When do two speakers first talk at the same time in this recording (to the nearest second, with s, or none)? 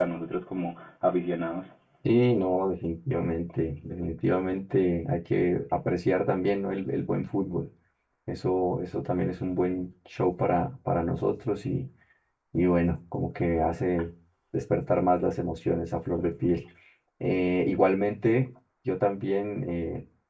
none